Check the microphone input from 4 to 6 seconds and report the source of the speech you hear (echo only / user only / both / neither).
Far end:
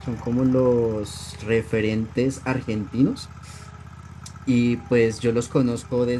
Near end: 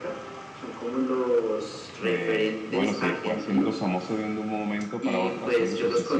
both